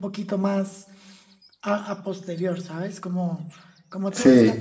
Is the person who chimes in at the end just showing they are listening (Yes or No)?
Yes